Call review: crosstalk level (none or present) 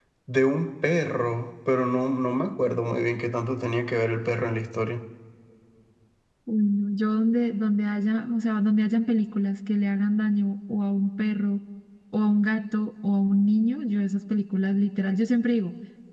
none